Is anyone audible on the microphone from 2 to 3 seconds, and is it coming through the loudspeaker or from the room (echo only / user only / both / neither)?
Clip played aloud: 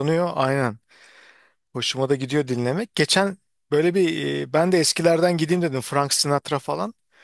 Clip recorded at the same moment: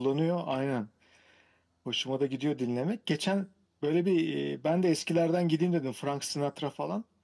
echo only